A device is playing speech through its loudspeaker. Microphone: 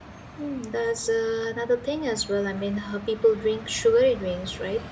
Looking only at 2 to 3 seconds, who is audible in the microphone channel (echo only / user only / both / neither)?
user only